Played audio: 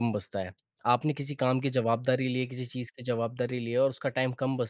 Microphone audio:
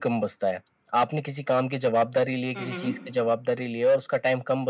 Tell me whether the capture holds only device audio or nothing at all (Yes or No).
No